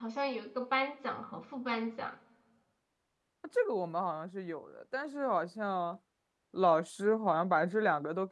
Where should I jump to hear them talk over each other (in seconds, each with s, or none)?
none